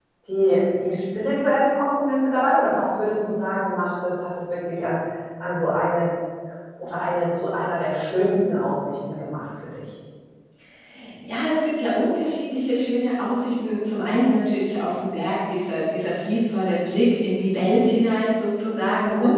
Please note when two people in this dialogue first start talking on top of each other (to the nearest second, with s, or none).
none